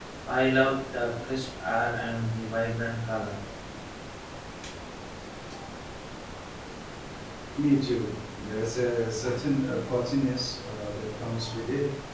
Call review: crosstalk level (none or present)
none